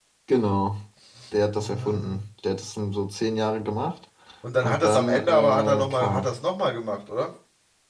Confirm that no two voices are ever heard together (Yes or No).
No